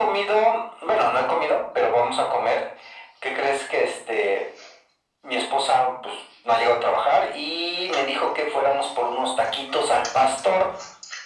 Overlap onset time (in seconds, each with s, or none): none